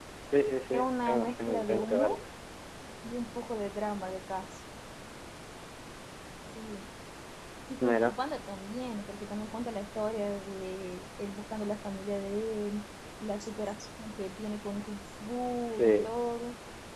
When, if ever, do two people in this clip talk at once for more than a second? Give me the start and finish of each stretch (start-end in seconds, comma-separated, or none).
0.7-2.2